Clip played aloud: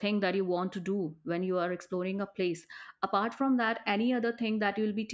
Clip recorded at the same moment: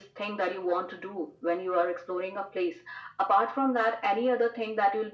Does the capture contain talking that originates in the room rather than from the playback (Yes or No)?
No